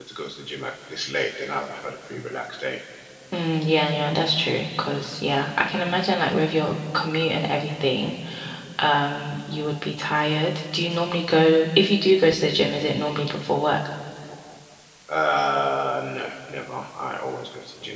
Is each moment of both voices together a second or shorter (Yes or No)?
Yes